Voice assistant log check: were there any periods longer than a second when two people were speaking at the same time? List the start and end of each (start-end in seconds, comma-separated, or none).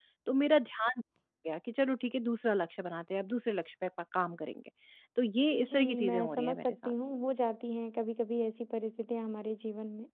5.7-6.9